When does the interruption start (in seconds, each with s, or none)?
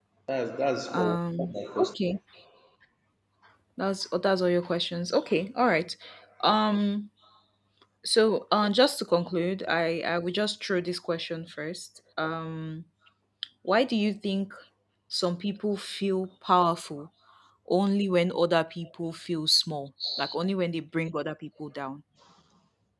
0.9 s